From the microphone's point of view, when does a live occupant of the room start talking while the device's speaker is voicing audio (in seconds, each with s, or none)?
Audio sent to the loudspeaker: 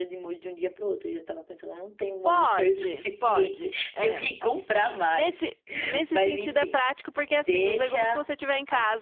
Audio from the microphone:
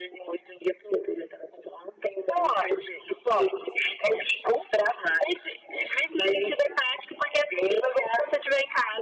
none